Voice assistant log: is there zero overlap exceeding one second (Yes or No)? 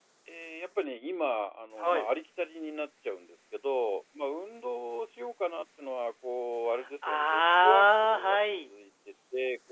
No